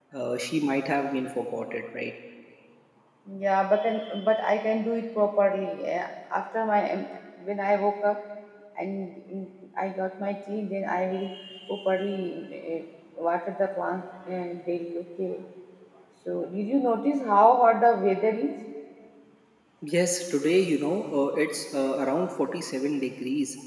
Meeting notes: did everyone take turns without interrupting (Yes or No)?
Yes